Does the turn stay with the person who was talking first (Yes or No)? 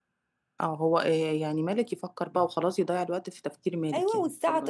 No